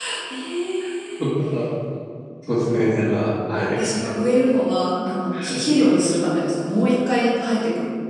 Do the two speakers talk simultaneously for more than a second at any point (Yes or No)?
No